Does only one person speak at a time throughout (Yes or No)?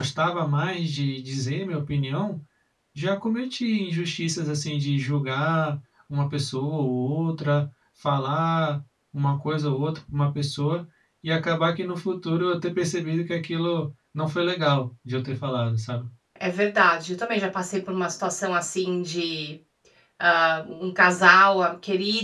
Yes